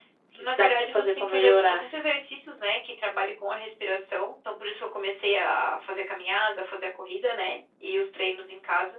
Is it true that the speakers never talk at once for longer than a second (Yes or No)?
No